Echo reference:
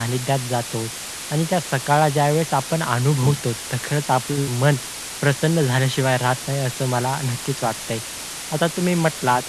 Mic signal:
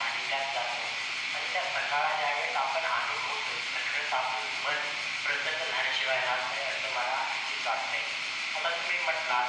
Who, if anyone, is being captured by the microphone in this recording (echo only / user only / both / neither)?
echo only